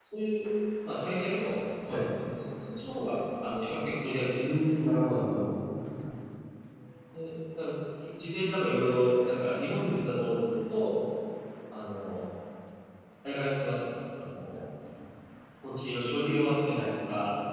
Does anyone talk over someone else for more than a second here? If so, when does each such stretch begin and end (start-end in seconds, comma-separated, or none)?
none